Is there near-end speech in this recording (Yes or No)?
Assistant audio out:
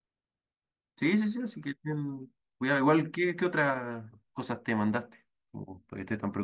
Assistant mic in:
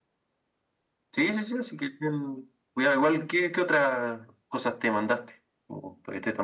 No